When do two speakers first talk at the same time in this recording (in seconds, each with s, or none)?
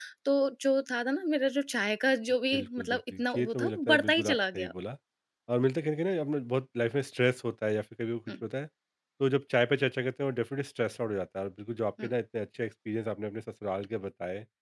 2.5 s